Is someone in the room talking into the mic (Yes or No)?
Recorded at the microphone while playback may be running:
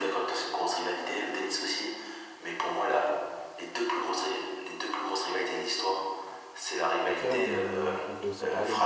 Yes